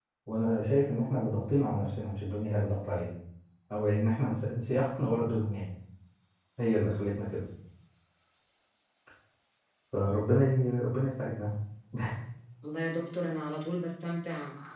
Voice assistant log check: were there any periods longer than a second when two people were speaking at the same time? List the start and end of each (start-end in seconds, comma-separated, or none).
none